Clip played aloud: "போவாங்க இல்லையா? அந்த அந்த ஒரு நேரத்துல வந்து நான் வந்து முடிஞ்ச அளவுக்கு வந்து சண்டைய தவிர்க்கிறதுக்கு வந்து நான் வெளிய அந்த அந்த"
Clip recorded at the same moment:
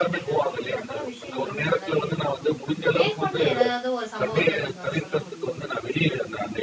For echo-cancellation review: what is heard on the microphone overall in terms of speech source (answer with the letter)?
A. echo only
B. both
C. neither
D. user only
B